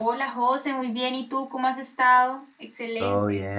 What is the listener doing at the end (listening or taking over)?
taking over